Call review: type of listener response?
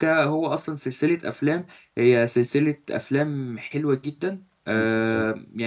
listening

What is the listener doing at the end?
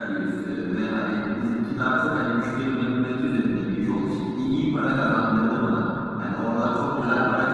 listening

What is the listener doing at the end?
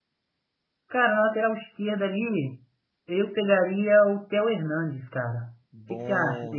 taking over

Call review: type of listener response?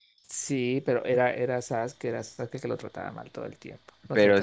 taking over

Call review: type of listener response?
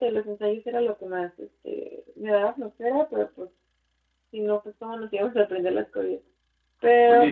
taking over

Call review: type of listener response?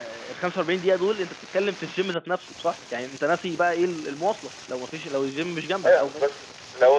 taking over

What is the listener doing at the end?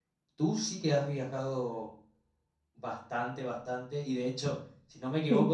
listening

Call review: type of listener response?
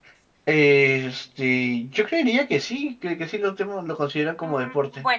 taking over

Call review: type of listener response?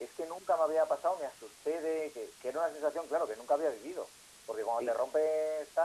listening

